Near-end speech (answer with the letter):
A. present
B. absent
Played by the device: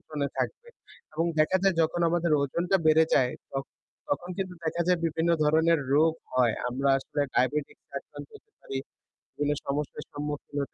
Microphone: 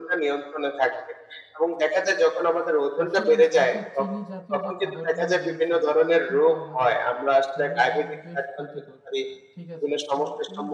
A